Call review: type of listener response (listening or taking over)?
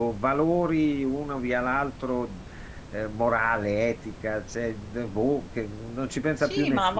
taking over